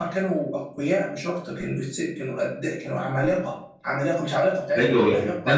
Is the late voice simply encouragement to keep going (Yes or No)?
No